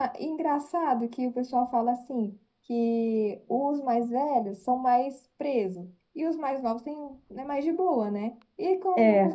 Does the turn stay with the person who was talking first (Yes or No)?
Yes